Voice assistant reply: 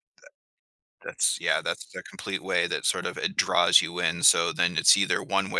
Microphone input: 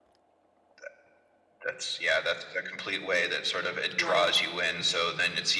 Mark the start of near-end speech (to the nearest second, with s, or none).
4 s